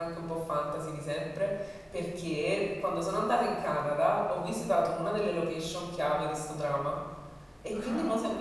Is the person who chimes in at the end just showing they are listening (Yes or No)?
Yes